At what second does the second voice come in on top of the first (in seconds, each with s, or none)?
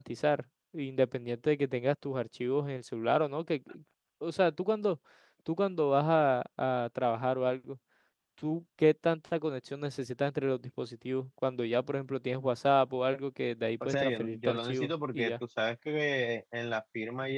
13.8 s